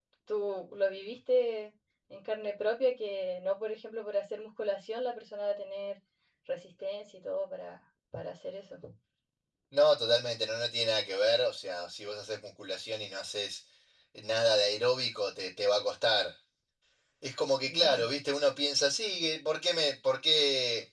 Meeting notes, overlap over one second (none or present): none